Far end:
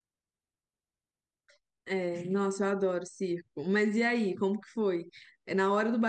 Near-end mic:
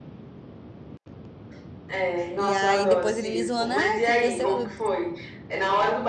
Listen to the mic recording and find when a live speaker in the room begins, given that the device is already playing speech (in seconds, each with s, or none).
2.4 s